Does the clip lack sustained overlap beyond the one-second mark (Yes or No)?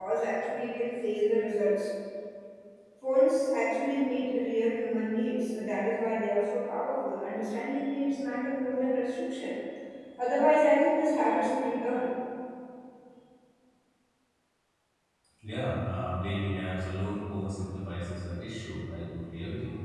Yes